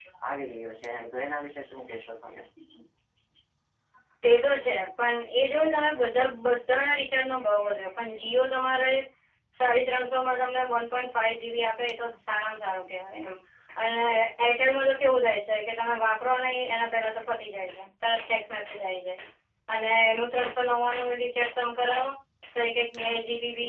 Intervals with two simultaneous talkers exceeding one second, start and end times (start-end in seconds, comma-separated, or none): none